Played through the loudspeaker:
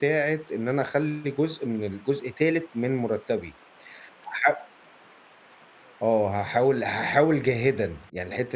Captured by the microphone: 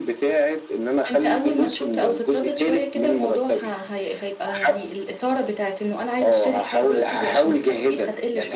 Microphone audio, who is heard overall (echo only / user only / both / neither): both